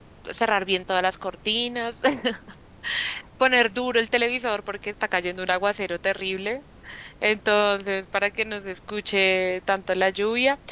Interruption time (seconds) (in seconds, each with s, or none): none